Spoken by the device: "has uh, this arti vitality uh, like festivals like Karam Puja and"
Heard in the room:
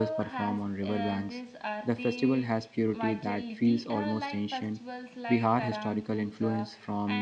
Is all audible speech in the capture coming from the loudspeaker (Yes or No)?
No